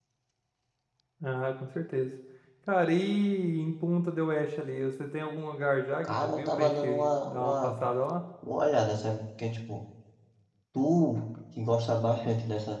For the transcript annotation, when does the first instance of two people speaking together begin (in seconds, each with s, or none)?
6.0 s